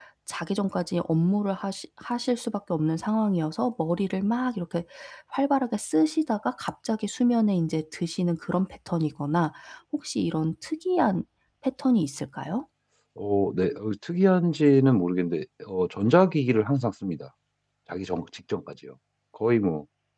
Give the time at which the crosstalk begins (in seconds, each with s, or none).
none